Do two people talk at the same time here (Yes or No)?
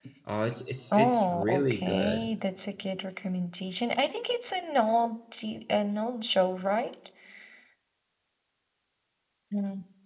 Yes